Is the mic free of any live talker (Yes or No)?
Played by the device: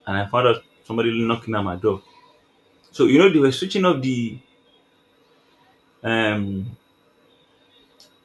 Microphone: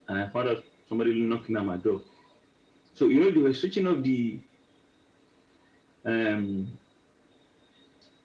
Yes